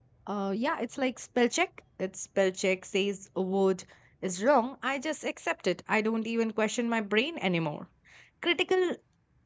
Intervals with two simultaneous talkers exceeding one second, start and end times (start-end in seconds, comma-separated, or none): none